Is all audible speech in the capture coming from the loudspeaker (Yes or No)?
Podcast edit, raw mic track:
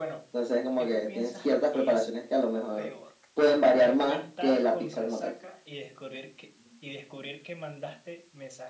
No